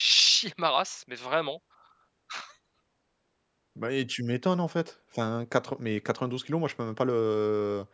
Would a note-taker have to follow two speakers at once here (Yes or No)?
No